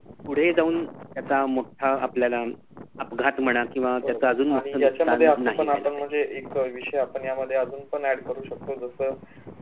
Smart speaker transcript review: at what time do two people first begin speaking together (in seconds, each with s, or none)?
3.8 s